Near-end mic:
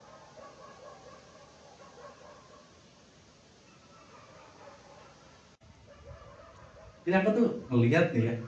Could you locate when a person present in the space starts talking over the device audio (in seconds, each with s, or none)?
7.0 s